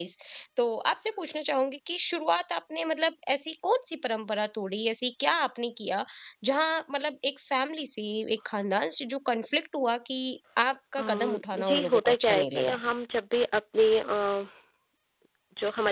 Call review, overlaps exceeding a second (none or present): present